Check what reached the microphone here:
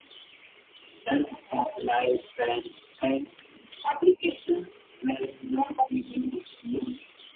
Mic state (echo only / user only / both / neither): echo only